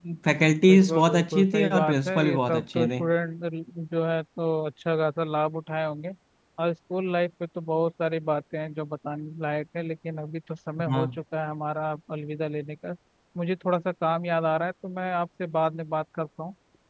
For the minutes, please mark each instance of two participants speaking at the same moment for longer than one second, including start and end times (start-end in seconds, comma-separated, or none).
0.7-3.0